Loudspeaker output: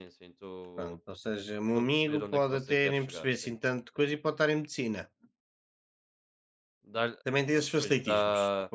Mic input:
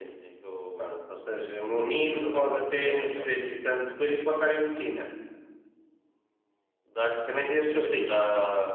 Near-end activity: present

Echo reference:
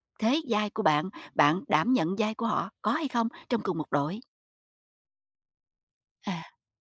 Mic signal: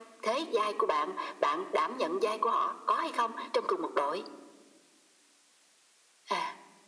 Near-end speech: none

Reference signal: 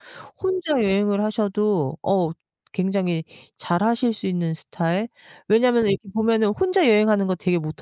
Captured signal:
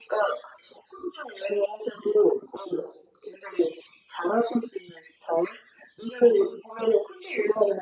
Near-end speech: none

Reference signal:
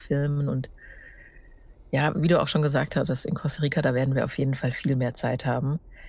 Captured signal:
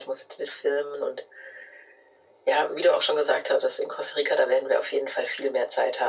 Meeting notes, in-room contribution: none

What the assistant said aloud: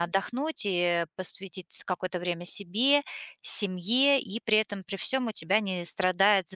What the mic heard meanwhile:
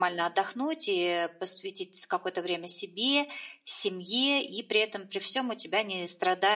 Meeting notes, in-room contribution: none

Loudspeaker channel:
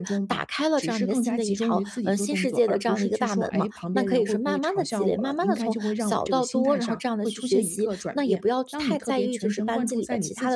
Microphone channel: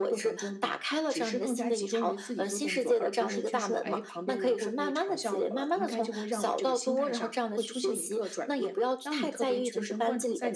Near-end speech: none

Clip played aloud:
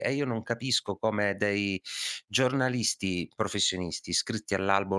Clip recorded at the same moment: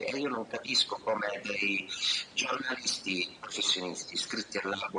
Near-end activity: none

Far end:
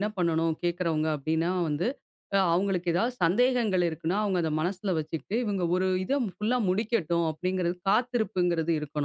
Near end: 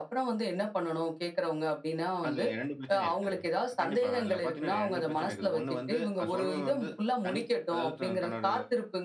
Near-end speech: present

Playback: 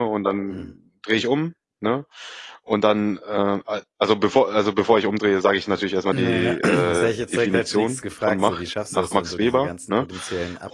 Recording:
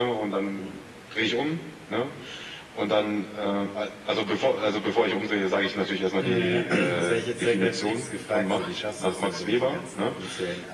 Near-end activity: none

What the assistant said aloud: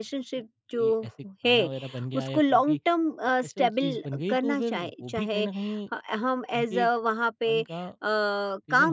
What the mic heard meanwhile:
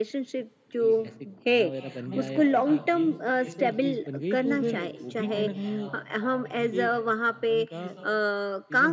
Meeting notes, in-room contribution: present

